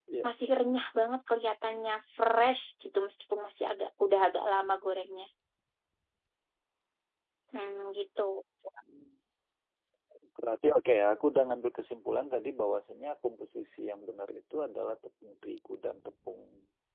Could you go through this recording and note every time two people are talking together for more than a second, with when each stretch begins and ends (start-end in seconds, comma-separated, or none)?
none